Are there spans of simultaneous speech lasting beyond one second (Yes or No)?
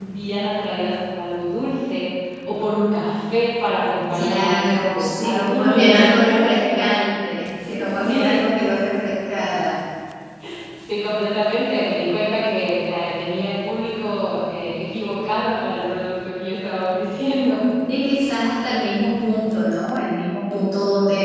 Yes